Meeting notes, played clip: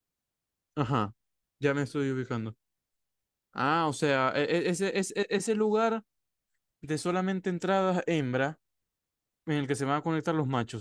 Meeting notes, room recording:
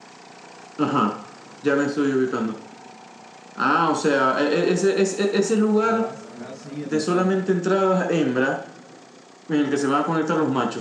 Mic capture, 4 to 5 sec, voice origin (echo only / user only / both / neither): echo only